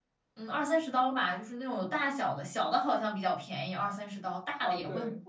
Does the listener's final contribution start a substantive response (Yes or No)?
Yes